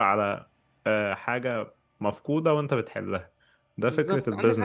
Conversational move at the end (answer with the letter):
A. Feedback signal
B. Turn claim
B